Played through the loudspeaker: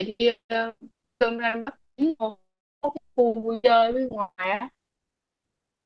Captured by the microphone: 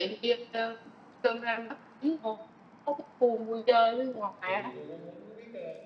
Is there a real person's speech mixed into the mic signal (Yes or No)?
Yes